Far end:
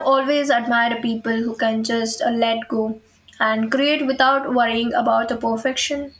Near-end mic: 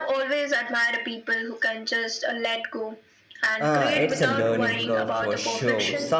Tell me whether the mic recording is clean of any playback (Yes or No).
No